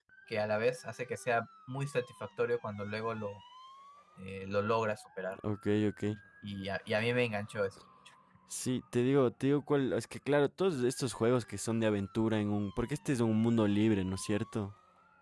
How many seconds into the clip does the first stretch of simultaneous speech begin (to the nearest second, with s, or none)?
none